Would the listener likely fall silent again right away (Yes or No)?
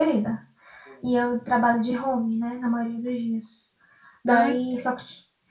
Yes